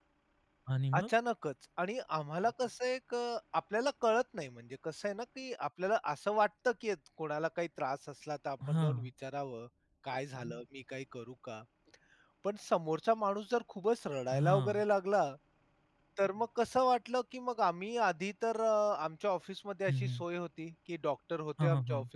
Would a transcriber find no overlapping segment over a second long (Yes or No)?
Yes